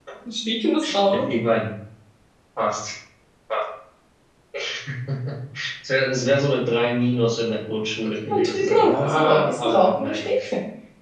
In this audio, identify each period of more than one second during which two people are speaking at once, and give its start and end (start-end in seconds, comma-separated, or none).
8.4-10.3